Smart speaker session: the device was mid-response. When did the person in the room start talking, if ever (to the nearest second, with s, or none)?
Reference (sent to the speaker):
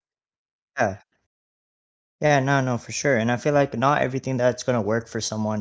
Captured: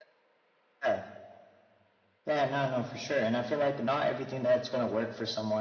none